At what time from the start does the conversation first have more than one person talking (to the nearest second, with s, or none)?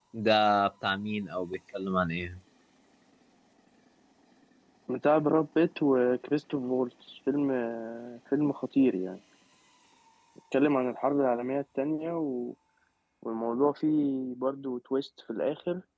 none